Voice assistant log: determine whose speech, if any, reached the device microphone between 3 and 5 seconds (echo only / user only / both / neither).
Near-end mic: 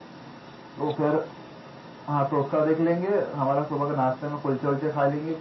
echo only